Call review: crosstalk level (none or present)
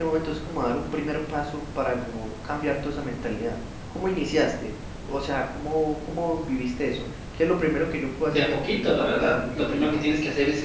present